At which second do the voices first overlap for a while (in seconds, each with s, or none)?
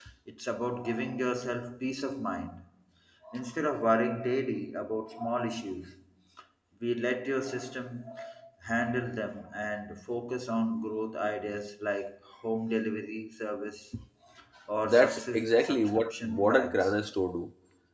14.8 s